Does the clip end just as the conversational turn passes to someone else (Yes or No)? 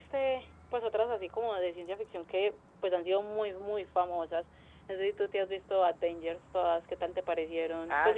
Yes